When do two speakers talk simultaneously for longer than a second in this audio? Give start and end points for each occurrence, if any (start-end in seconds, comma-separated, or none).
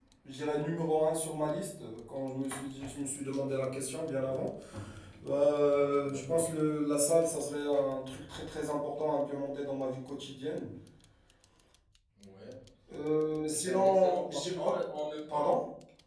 13.5-14.8